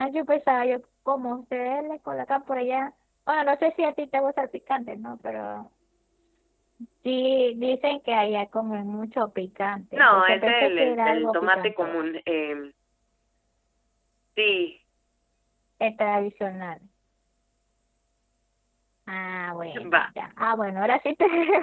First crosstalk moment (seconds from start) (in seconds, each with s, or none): 10.0 s